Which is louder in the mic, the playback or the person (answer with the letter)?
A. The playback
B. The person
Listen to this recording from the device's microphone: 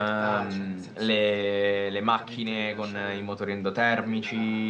B